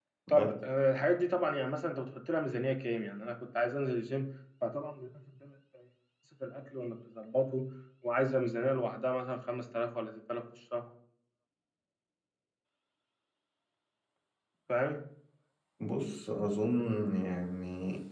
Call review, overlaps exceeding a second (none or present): none